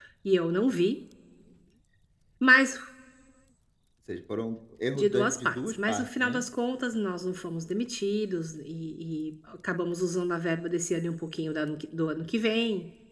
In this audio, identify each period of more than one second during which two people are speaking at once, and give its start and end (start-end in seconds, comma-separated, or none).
4.9-6.4